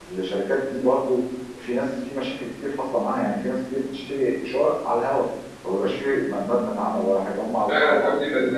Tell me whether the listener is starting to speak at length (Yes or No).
Yes